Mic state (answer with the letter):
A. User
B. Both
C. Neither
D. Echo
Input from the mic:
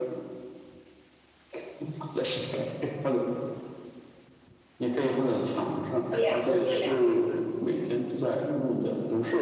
B